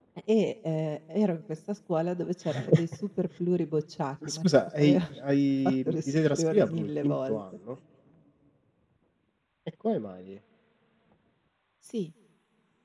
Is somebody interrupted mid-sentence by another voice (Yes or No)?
Yes